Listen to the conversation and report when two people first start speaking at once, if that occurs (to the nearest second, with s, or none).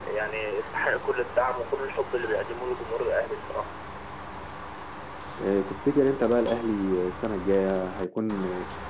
none